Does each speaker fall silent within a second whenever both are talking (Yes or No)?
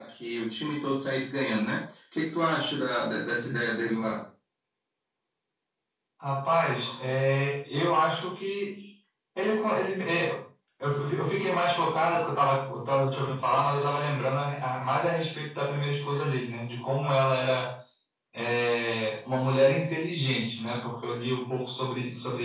Yes